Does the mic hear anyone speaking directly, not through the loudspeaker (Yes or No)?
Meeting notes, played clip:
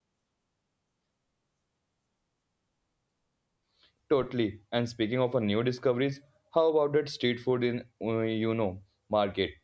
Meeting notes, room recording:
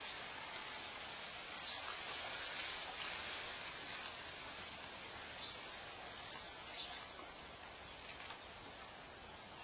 No